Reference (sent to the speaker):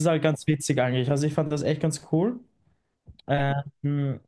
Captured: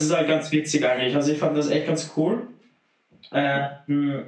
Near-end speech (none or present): none